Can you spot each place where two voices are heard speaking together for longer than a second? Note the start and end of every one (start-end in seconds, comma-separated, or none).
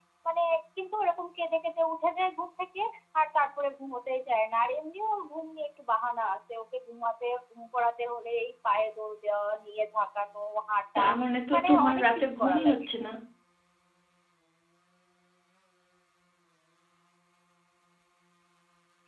11.5-12.8